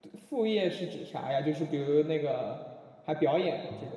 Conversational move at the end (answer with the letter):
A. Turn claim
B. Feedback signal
A